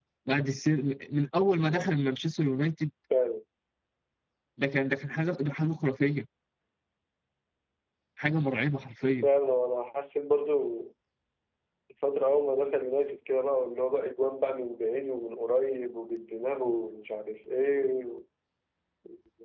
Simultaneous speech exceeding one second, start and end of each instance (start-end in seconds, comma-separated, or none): none